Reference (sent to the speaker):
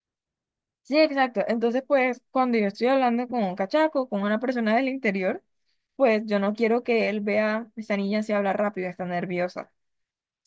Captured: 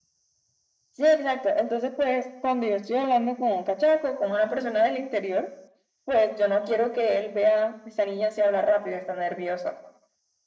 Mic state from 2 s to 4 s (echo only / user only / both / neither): echo only